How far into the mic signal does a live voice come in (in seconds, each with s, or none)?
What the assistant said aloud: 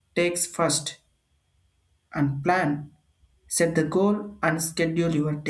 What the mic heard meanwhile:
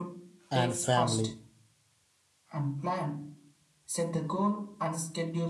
0.5 s